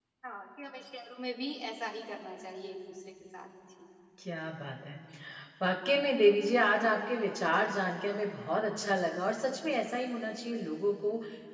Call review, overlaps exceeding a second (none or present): none